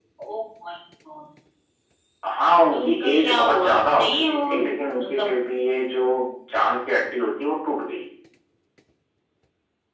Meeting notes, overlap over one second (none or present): present